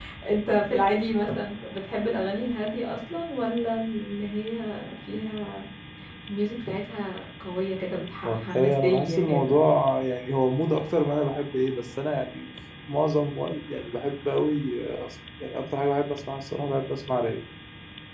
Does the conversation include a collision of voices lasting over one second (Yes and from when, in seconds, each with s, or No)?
Yes, from 8.2 s